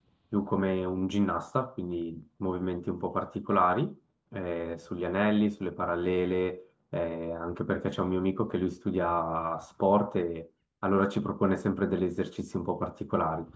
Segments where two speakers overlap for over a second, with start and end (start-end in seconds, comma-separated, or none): none